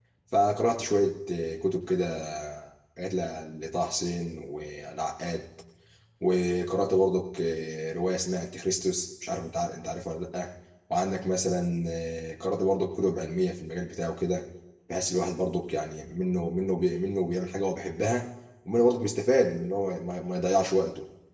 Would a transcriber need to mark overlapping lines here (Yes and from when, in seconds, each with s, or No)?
No